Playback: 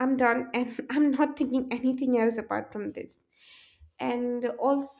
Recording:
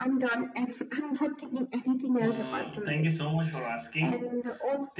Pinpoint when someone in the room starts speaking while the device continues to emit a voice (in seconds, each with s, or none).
2.2 s